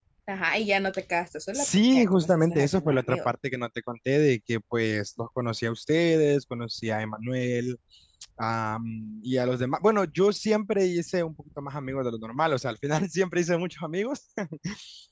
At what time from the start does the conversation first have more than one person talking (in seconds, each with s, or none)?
1.5 s